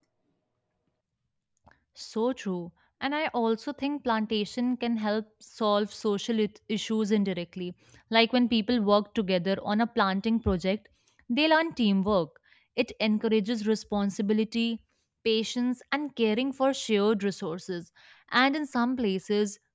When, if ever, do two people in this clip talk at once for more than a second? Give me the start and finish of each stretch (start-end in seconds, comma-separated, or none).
none